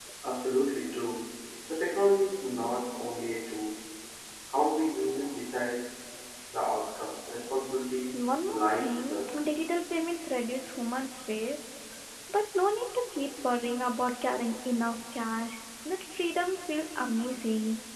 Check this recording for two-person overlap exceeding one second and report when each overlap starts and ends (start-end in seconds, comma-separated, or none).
8.1-9.4